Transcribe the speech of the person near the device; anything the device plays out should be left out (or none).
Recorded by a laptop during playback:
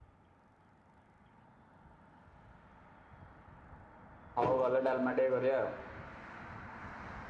ହଉ ଗଲେ ଡାଲମା ଟିକେ କରିବା ଆଉ।